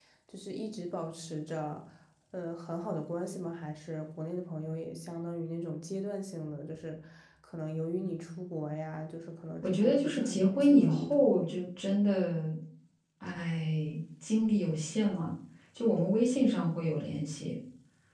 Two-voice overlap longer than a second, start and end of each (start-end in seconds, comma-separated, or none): 9.6-11.2